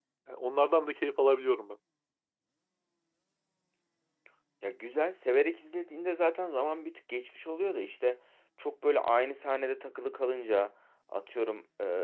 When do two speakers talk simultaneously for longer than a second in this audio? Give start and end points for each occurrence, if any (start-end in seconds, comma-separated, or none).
none